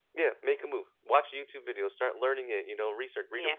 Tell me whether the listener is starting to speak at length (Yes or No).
No